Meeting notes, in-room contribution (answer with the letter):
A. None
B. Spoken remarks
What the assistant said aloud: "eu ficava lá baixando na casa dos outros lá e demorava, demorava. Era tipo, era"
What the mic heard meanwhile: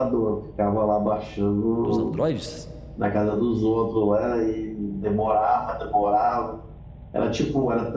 B